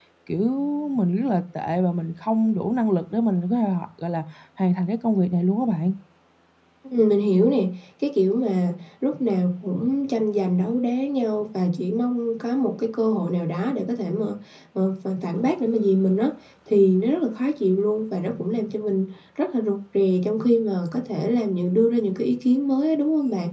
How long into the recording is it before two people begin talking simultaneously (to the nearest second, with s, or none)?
none